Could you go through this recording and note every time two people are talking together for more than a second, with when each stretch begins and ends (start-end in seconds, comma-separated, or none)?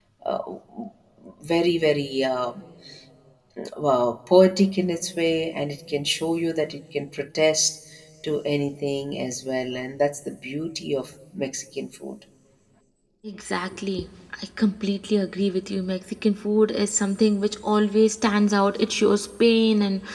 none